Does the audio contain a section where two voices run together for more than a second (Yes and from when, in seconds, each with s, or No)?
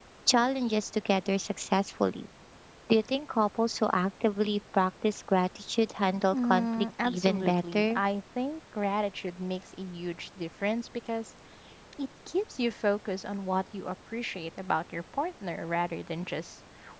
Yes, from 6.3 s